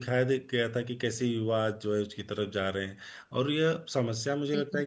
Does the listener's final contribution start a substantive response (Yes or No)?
No